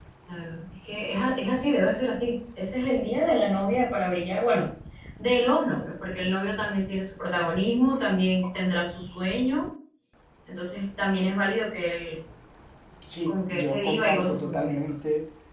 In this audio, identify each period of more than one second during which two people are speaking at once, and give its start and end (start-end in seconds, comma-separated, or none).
13.3-14.7